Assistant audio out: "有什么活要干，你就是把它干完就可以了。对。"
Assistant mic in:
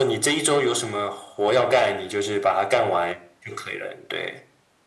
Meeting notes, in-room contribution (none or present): none